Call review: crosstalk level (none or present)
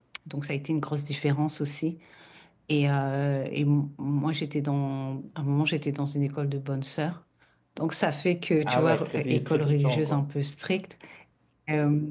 present